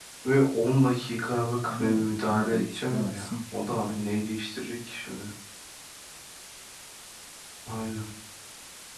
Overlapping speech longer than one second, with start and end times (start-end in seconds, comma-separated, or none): 1.7-4.0